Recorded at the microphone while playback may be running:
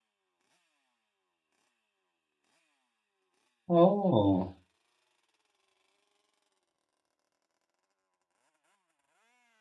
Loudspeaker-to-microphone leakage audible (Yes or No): No